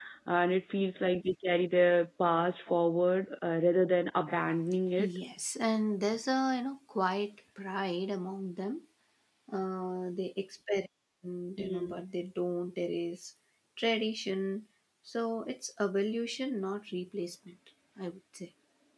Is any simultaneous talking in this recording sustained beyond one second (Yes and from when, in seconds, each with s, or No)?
No